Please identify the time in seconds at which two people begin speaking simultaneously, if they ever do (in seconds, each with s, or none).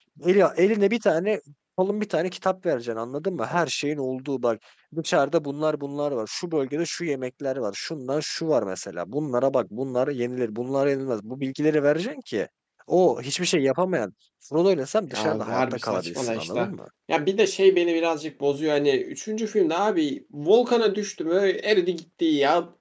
15.1 s